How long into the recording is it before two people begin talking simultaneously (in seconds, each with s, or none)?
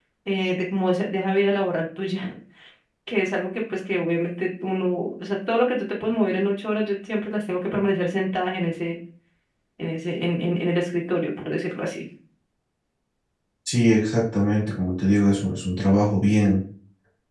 none